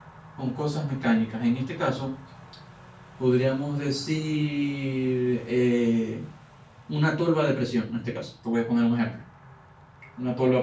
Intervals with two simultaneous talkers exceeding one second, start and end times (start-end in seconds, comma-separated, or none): none